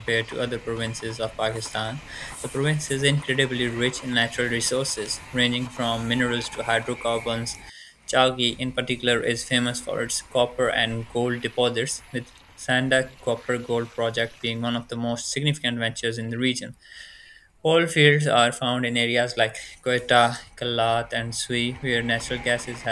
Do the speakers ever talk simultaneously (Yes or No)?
No